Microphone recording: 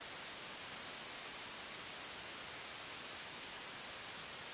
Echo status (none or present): none